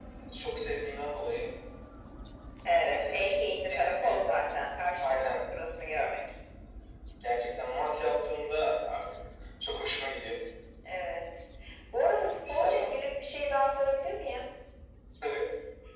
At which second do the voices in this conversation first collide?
3.0 s

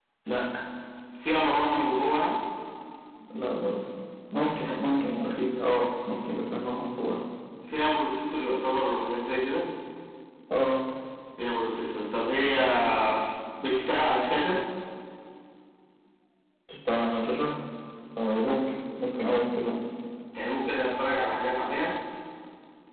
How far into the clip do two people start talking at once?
none

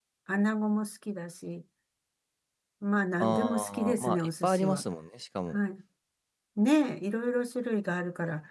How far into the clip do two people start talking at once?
3.2 s

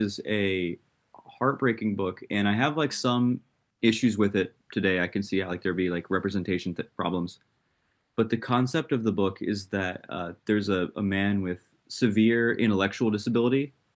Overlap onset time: none

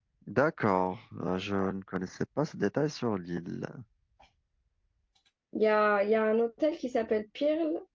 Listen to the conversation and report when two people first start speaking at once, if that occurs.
none

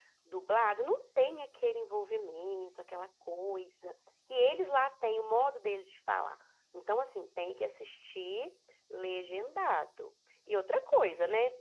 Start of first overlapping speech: none

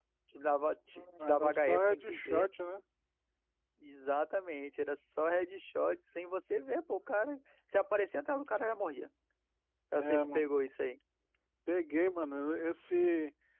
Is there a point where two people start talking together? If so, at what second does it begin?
1.2 s

